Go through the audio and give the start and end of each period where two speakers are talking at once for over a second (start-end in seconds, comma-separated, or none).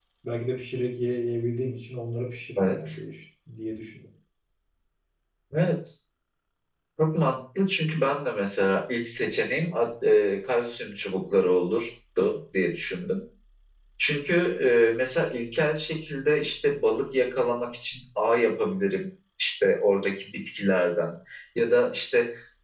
none